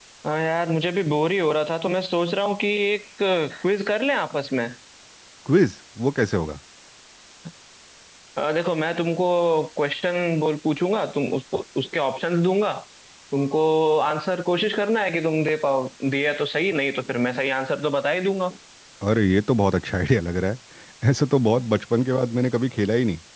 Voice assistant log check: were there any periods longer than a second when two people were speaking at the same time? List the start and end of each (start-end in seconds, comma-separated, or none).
none